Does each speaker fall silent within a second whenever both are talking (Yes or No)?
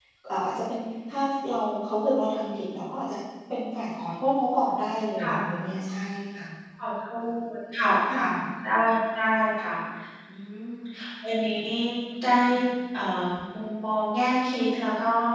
Yes